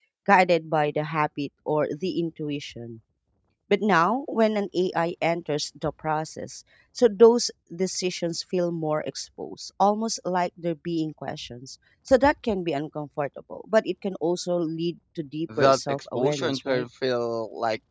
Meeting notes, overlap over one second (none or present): present